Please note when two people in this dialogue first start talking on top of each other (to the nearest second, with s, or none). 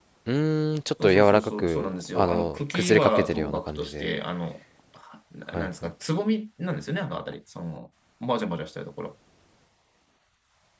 1 s